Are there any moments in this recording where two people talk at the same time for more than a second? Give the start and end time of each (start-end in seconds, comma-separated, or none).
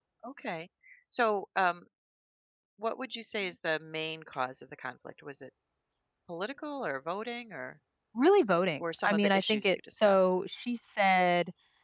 8.8-10.3